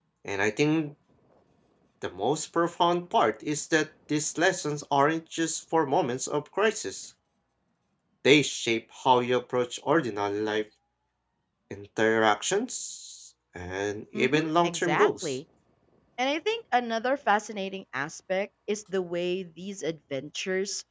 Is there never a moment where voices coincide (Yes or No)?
No